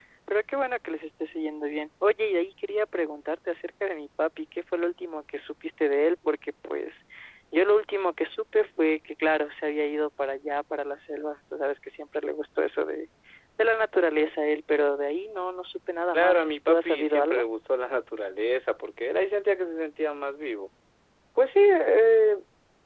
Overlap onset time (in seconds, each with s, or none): 16.1 s